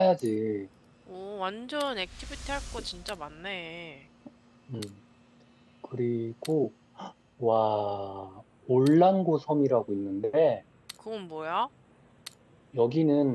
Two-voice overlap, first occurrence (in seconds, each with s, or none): none